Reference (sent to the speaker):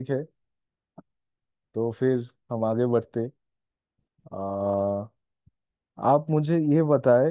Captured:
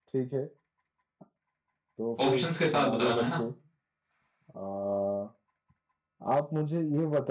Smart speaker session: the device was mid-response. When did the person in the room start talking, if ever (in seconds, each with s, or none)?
2.2 s